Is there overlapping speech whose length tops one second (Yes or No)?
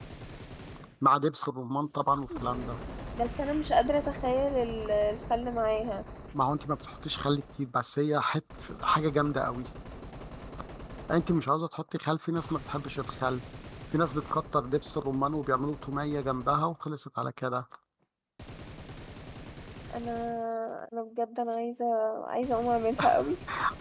No